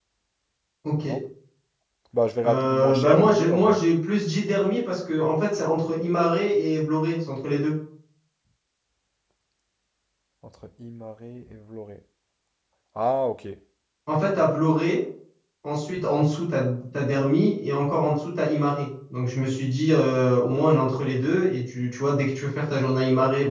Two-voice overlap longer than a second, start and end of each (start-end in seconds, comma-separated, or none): 2.5-3.8